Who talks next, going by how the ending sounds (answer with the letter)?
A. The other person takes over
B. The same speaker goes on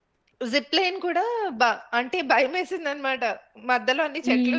B